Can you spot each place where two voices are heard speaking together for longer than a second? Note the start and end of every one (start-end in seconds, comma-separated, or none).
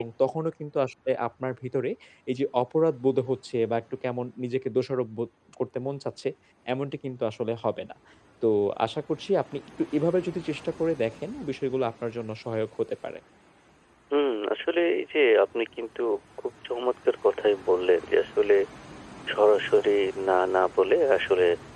none